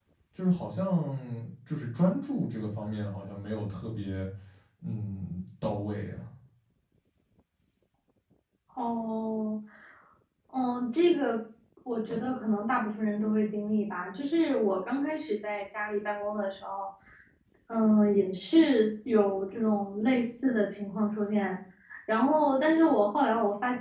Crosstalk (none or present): none